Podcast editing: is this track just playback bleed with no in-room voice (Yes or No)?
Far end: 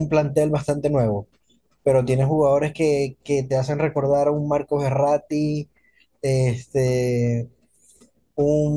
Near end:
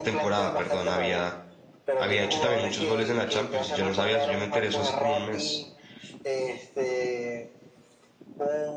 No